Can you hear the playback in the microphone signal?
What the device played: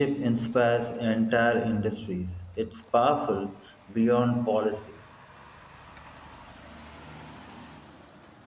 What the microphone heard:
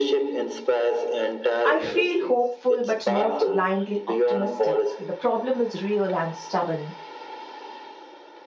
Yes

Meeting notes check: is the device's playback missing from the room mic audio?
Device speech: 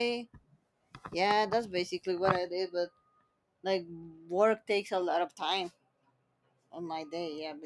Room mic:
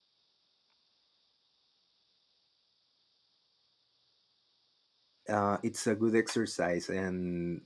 Yes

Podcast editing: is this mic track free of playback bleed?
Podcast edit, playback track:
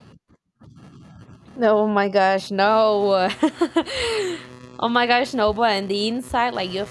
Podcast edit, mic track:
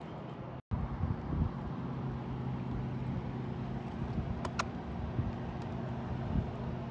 Yes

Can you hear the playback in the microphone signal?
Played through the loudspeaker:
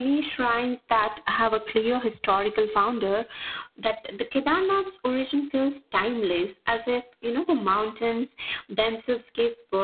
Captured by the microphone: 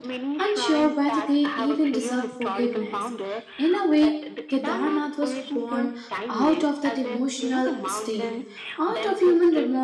Yes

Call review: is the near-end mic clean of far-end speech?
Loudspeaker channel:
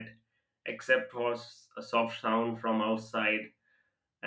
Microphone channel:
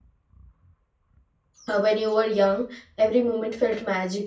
Yes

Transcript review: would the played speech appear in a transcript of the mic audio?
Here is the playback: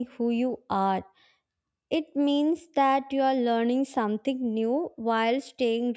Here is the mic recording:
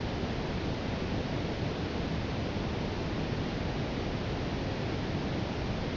No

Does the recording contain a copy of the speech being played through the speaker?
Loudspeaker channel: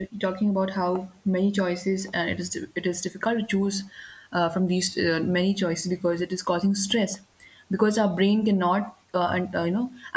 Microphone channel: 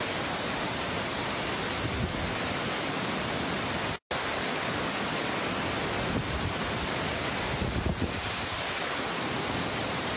No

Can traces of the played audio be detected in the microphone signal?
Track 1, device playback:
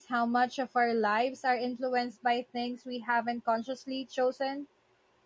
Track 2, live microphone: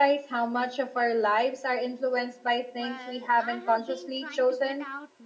Yes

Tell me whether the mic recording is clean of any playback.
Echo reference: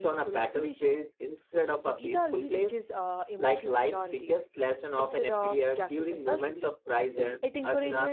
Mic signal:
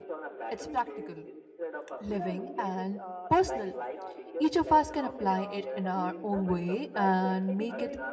No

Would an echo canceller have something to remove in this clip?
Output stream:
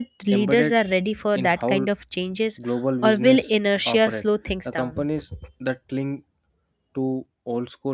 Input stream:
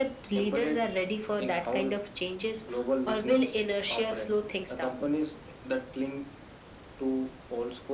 Yes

